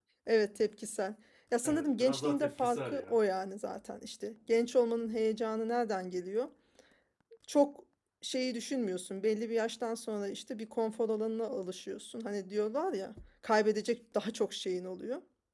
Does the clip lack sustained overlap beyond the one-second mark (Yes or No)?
No